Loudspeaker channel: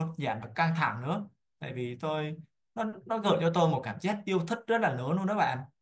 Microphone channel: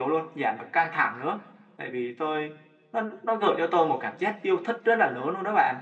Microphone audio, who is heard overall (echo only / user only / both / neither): echo only